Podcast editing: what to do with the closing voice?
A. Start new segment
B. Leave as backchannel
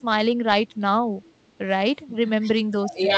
A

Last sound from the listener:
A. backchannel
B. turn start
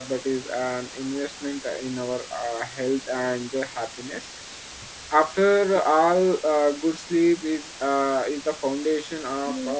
A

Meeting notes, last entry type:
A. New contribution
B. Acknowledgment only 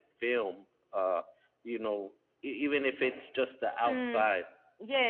A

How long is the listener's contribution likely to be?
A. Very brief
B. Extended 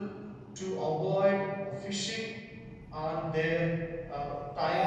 B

